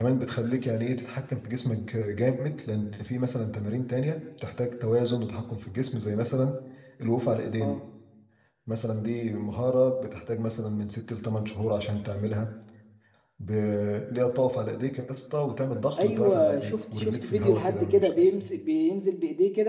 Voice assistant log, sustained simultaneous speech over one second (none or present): present